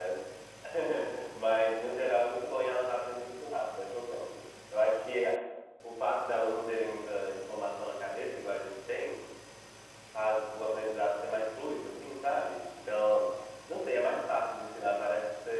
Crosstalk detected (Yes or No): No